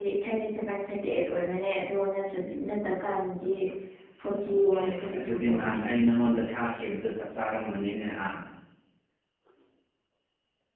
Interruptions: present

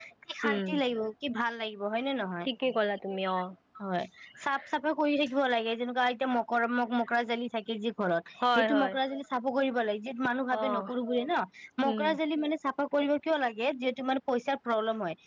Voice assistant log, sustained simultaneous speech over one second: none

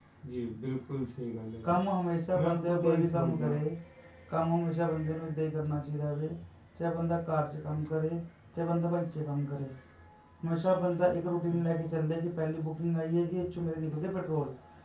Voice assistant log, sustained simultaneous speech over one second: present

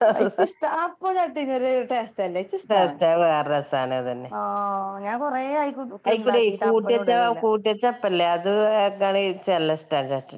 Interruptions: present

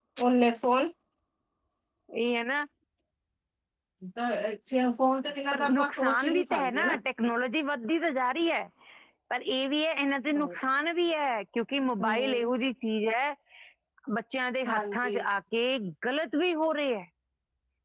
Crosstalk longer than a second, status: present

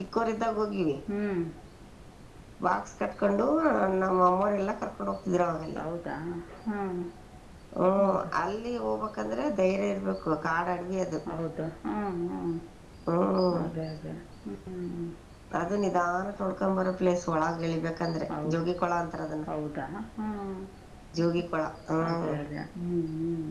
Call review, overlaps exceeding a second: none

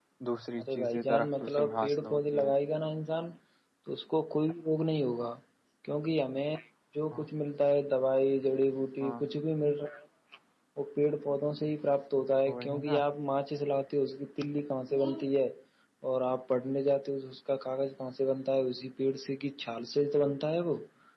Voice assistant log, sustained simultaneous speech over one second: present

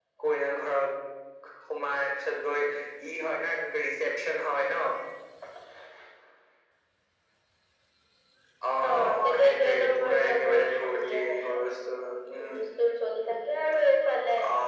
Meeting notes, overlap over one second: present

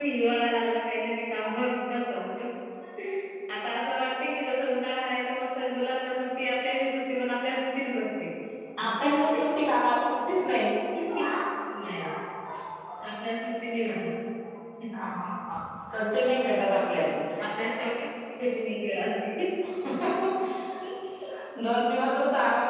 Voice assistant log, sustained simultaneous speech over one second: none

